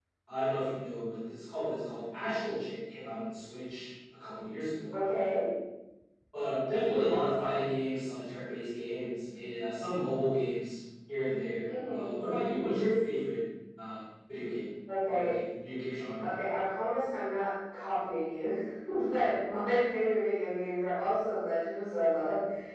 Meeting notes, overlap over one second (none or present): none